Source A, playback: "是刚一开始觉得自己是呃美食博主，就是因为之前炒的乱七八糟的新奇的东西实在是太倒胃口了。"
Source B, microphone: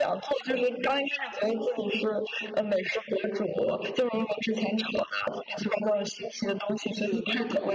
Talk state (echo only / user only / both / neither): both